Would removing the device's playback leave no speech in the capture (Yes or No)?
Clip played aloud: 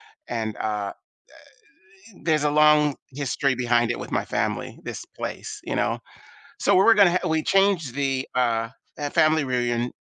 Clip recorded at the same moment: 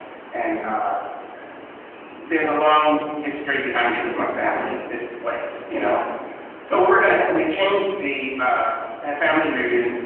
Yes